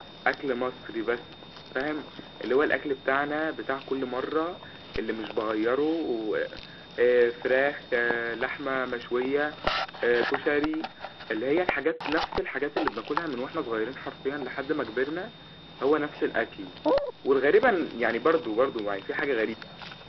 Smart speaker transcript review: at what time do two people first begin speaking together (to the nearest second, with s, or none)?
none